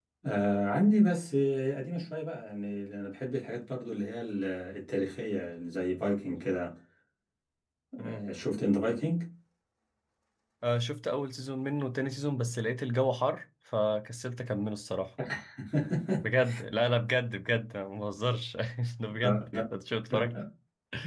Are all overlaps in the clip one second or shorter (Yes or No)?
Yes